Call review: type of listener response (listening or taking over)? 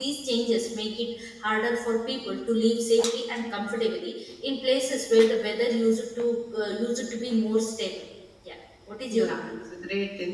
taking over